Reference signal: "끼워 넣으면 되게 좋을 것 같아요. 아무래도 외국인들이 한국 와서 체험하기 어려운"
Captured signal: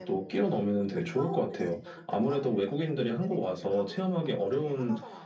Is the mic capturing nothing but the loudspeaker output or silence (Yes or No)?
No